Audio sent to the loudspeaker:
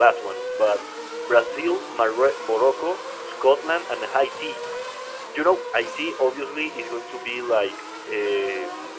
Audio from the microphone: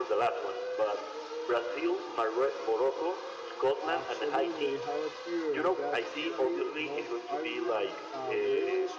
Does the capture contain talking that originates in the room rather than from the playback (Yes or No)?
Yes